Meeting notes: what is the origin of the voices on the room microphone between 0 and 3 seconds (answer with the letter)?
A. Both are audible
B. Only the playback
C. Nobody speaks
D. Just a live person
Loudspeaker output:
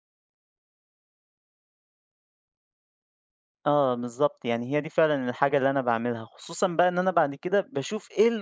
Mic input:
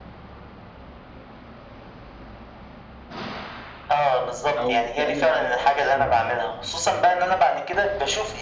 C